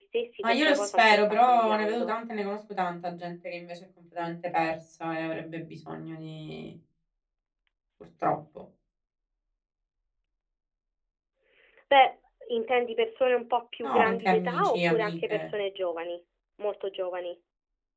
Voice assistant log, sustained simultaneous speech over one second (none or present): present